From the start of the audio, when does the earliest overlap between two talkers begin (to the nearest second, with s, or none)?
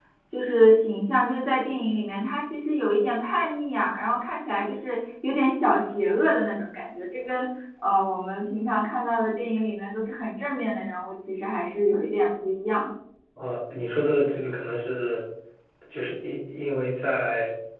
none